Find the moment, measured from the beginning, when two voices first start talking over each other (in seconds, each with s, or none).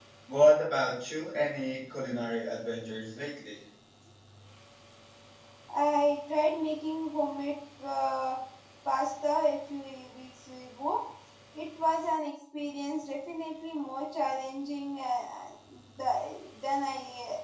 none